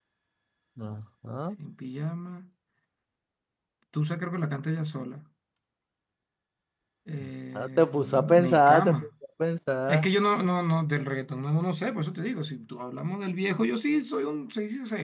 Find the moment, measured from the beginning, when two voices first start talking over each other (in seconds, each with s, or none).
7.5 s